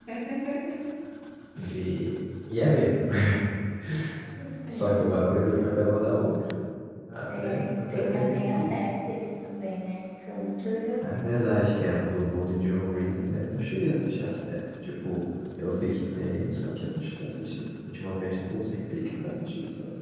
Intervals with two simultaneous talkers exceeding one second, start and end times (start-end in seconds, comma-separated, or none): 7.3-8.8